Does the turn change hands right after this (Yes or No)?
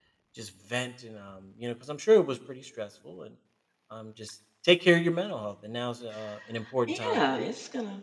Yes